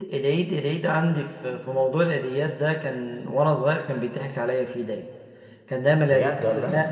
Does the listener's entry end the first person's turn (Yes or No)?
No